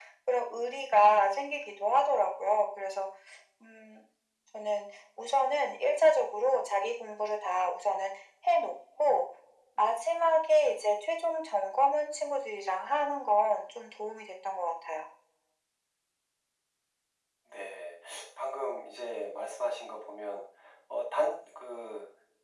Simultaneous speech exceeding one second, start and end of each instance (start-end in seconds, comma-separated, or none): none